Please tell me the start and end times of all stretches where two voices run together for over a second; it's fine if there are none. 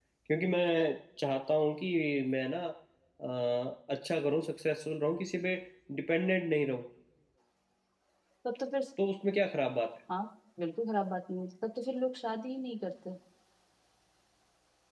none

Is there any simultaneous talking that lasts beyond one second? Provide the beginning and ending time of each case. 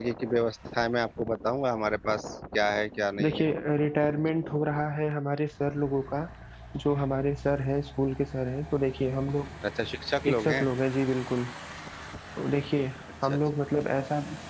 none

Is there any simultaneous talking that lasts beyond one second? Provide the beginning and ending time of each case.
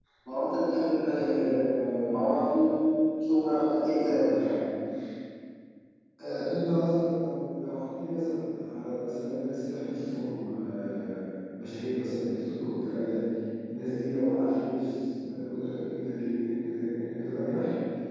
none

